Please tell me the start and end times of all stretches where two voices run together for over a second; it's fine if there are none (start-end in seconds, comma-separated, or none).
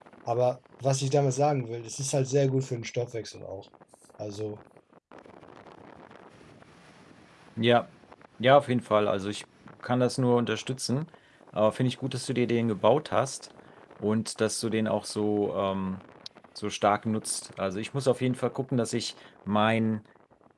none